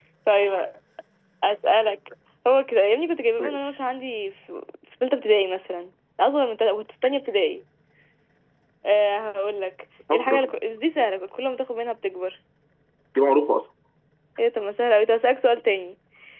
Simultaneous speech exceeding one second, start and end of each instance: none

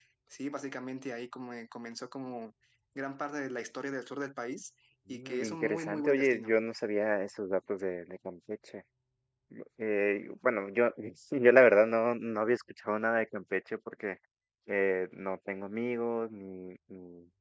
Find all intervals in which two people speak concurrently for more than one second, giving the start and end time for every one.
5.1-6.5

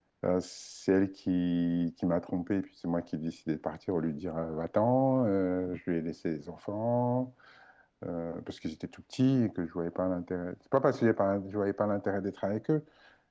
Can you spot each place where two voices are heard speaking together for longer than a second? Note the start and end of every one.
none

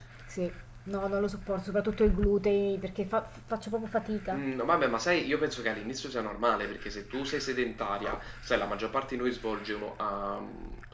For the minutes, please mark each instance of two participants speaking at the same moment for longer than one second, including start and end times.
none

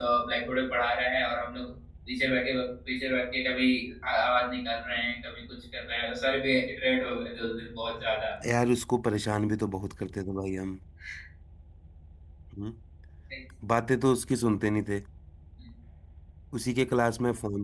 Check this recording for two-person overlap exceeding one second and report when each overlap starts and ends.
none

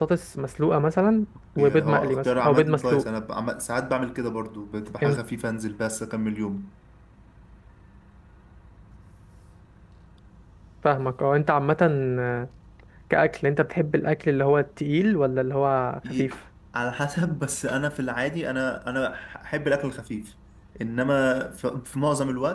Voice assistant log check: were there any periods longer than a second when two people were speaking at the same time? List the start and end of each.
1.6-3.1

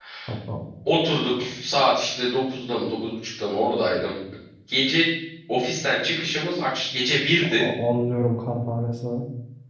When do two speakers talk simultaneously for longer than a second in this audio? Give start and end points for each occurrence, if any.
none

